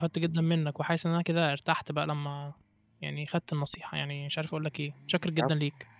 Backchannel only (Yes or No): No